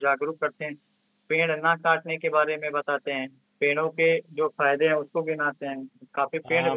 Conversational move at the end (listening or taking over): taking over